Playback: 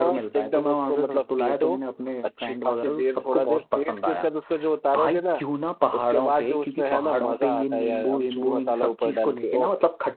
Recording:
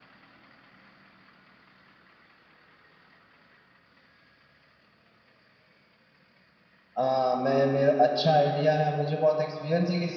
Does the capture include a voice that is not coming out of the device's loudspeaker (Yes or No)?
Yes